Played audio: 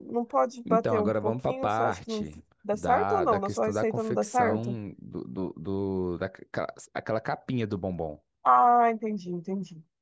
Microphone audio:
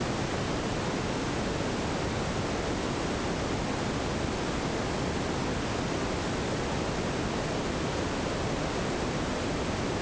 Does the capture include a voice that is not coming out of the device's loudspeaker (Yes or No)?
No